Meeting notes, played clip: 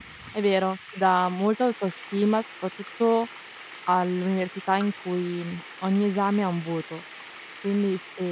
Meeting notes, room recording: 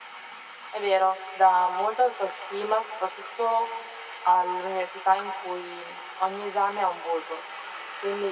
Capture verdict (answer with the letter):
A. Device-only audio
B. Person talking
A